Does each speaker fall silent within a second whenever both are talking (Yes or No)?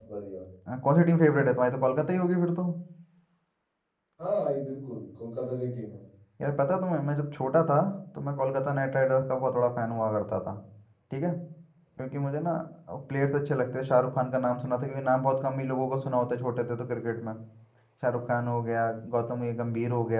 Yes